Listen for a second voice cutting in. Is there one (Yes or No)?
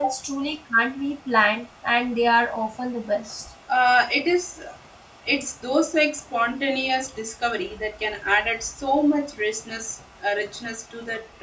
No